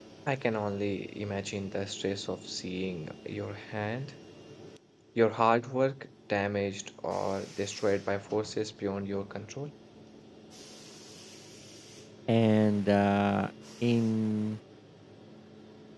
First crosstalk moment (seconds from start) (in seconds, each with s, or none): none